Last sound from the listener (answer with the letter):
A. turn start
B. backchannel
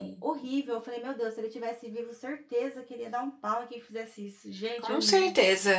A